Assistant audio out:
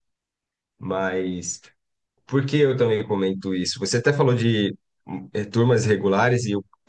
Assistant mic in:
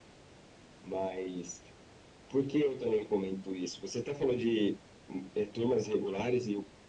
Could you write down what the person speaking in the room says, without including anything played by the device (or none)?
none